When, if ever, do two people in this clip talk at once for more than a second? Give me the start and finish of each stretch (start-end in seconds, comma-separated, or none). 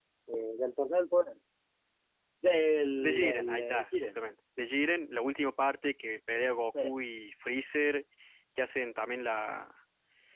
3.0-4.2